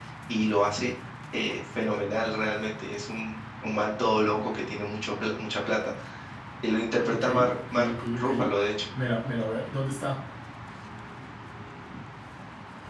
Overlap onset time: 7.1 s

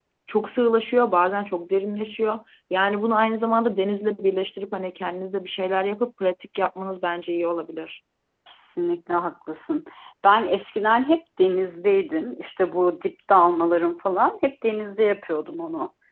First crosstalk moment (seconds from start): none

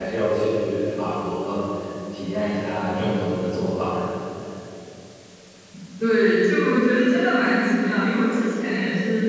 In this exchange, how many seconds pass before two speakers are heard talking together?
none

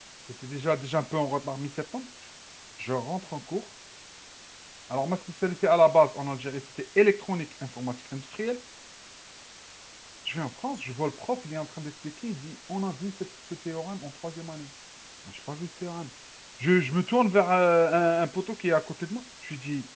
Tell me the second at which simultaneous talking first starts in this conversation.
none

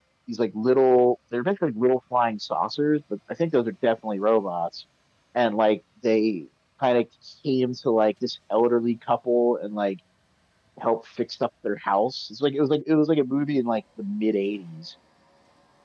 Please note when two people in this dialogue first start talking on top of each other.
none

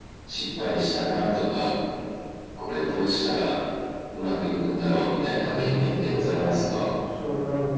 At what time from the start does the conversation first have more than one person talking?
5.4 s

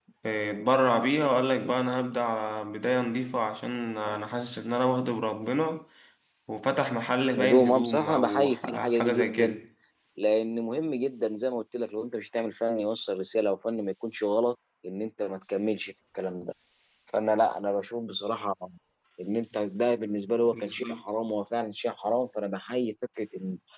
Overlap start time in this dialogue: 7.4 s

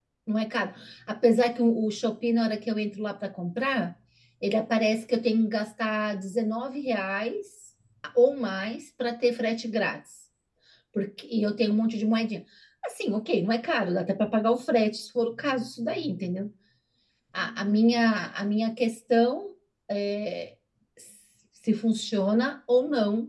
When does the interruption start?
none

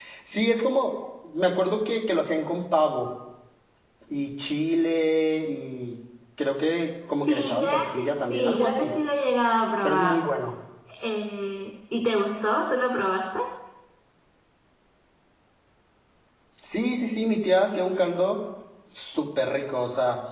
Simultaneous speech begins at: 7.3 s

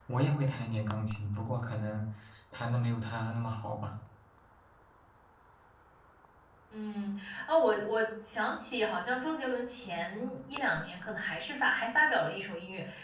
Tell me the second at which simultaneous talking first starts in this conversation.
none

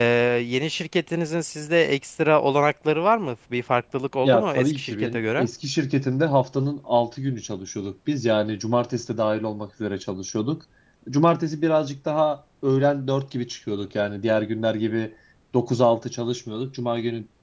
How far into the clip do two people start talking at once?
4.2 s

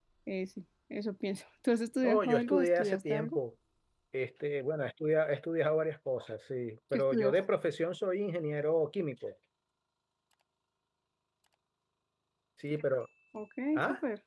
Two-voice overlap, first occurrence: 2.0 s

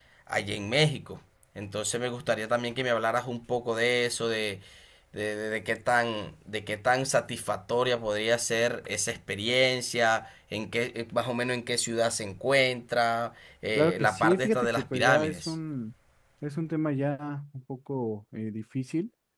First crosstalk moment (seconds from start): 13.8 s

